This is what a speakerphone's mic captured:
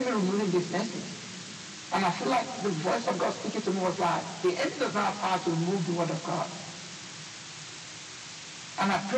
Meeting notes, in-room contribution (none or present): none